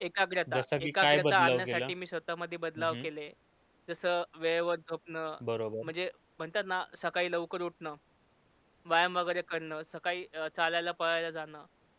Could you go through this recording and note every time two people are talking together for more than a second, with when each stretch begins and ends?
0.6-1.8

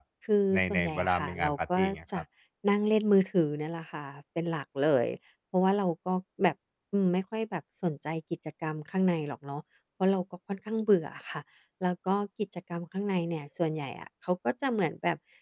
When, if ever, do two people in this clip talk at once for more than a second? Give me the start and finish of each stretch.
0.5-2.2

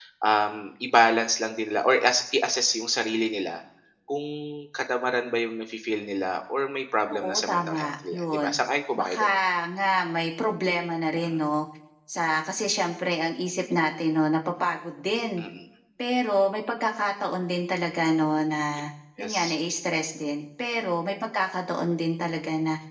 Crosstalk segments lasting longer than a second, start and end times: 7.1-8.5

